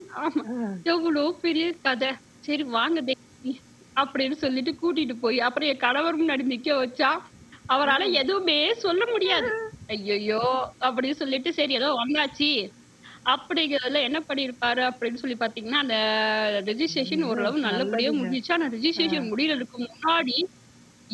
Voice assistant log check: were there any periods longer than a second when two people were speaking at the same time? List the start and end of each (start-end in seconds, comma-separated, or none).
16.9-18.3